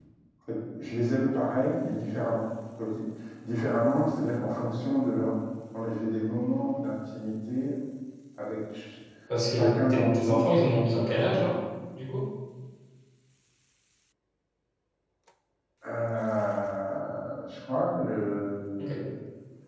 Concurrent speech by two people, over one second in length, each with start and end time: 9.5-11.5

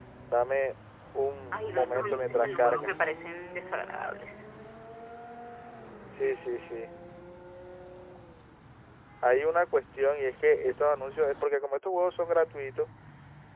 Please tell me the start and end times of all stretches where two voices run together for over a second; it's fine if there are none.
1.5-2.9

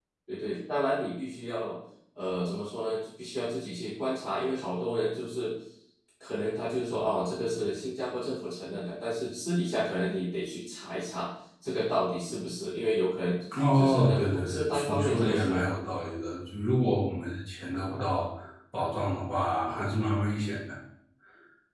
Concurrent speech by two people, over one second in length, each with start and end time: 13.7-15.7

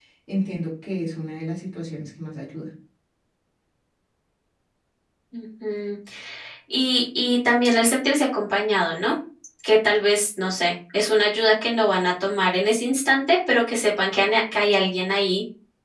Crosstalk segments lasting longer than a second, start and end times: none

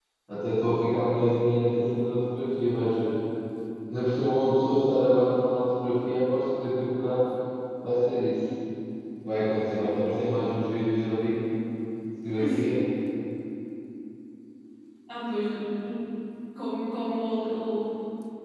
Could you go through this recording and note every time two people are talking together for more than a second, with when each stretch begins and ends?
none

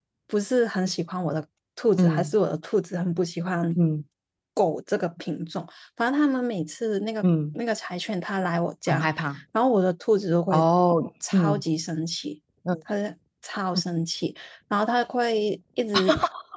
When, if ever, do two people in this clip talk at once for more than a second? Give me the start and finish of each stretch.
none

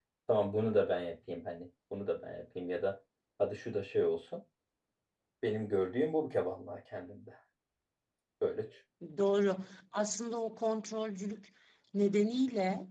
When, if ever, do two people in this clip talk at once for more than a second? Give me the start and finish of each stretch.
none

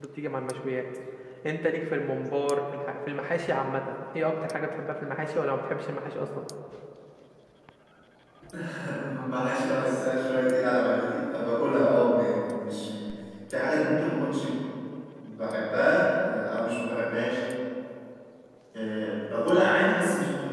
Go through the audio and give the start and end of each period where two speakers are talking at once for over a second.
none

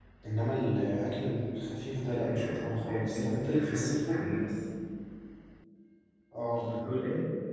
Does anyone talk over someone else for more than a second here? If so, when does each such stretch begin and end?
2.1-4.2

